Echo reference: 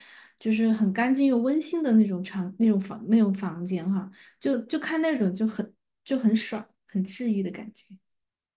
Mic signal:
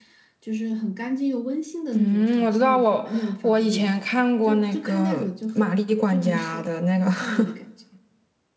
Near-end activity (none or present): present